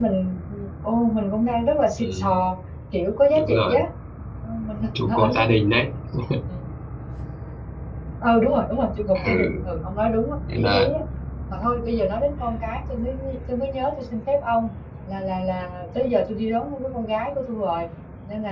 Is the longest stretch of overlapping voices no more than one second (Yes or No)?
Yes